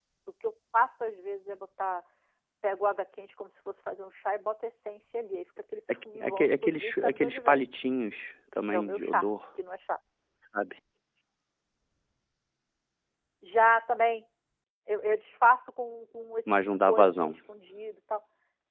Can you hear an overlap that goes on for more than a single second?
Yes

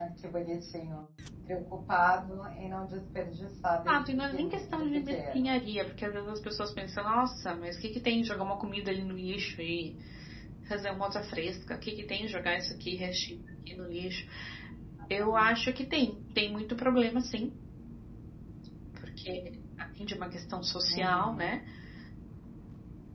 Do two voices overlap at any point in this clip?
Yes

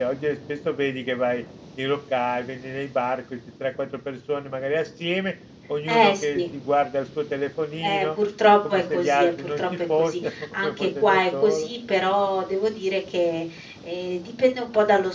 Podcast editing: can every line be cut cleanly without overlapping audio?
No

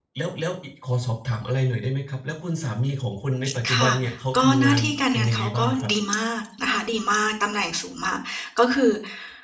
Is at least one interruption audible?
Yes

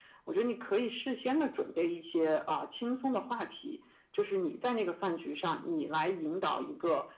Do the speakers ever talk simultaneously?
No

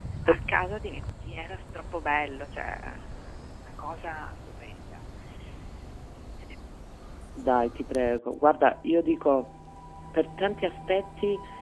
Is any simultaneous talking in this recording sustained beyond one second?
No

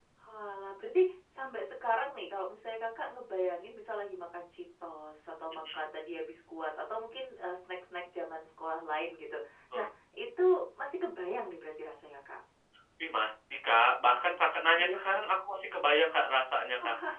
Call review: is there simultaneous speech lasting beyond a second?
No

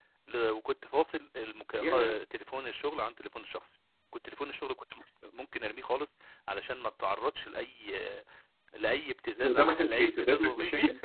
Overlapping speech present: Yes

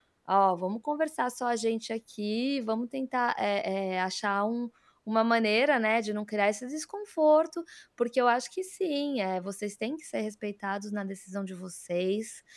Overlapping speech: No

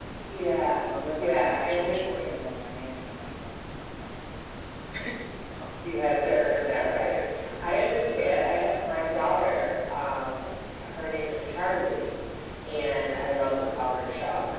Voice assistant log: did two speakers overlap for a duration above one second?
Yes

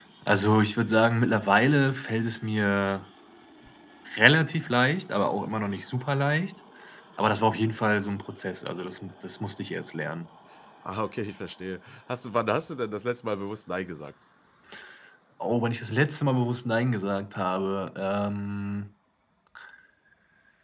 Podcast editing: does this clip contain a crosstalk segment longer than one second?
No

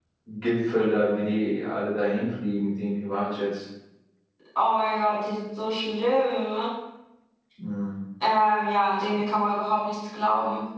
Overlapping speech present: No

